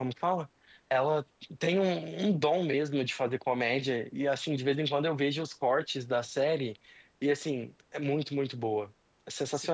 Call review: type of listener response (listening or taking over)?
taking over